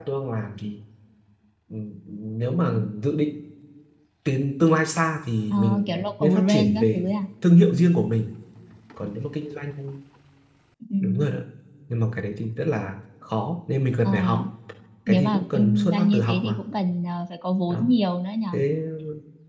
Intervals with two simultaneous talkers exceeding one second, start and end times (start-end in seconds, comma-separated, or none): 5.5-7.0, 15.1-16.6